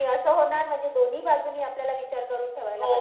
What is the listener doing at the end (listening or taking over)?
taking over